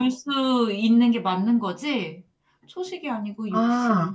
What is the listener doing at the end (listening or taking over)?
taking over